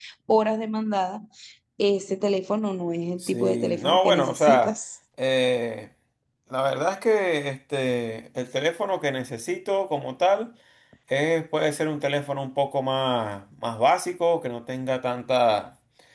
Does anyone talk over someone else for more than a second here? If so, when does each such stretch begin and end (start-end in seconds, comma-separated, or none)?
3.2-4.8